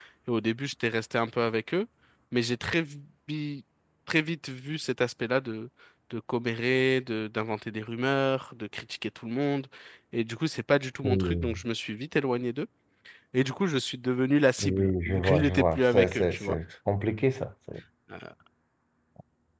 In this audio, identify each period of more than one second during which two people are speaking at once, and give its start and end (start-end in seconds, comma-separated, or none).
14.6-16.6